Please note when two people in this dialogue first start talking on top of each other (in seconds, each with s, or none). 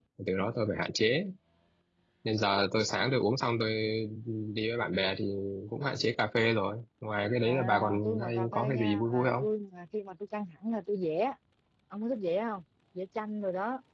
7.5 s